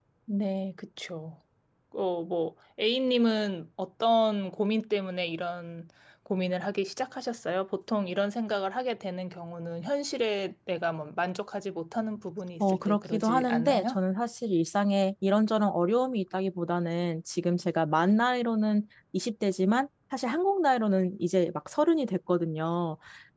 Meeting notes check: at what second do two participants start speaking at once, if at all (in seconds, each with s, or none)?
12.6 s